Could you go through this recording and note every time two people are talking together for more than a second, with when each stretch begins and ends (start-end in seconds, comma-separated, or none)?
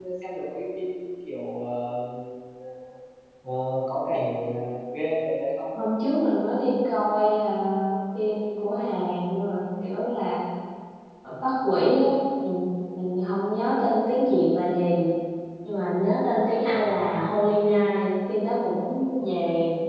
none